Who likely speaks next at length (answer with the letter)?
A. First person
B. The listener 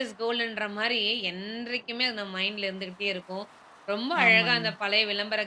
A